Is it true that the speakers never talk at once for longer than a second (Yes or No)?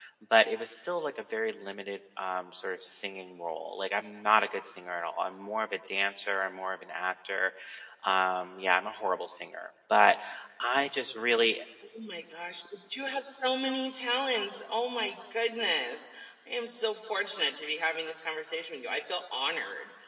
Yes